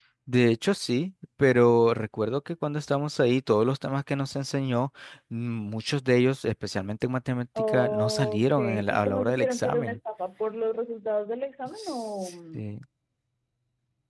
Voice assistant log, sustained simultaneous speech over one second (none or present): present